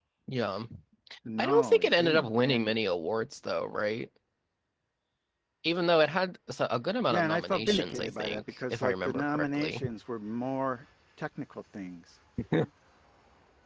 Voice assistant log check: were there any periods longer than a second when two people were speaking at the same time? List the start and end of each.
1.4-2.7, 7.1-9.8

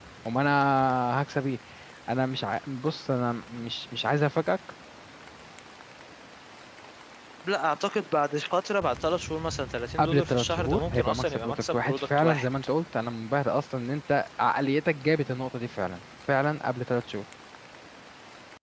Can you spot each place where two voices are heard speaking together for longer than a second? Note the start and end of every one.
10.0-12.5

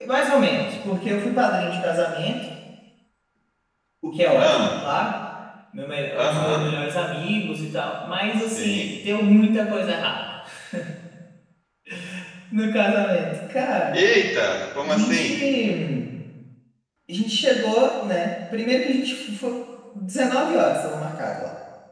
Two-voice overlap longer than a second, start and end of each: none

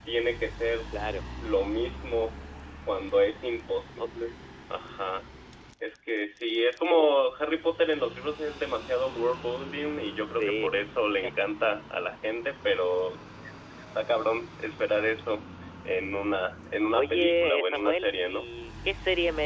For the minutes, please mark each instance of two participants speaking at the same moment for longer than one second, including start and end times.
16.9-18.5

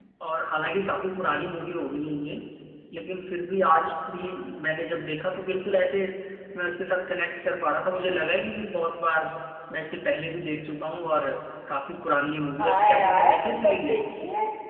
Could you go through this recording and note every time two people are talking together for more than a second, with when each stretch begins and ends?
12.6-14.0

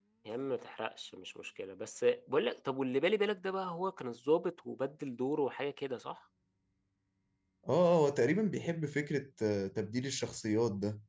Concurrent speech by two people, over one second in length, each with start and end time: none

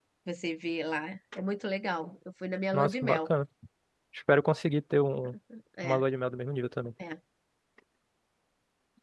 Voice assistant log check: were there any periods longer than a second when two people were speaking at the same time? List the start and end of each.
none

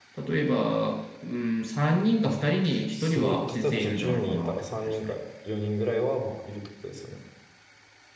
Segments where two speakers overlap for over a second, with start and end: 2.9-5.2

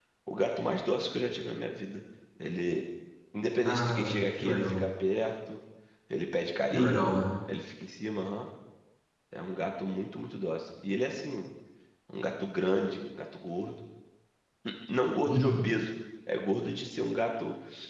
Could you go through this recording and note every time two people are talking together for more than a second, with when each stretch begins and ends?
3.6-4.8

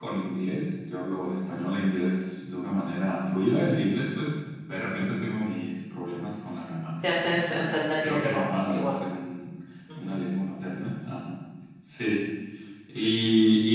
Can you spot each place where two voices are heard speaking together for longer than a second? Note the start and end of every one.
7.0-8.9

